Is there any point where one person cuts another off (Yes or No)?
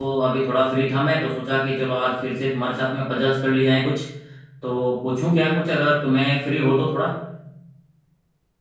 No